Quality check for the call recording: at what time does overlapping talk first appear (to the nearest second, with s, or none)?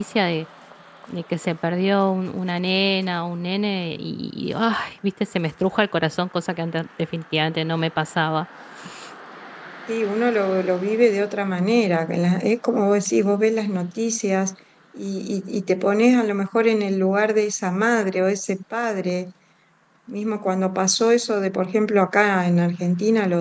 none